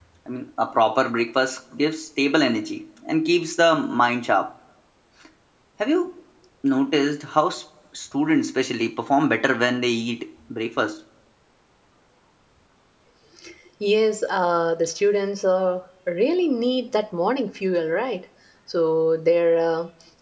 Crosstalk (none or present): none